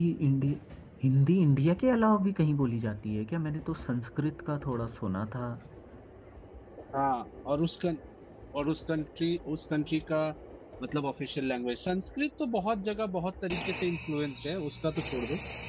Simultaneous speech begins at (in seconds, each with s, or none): none